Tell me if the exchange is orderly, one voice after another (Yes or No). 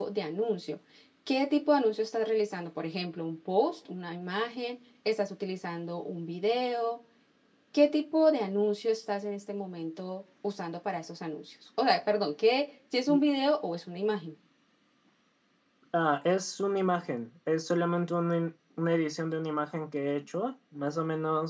Yes